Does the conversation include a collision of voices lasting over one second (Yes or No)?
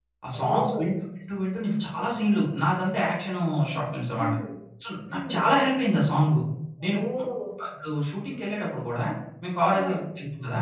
No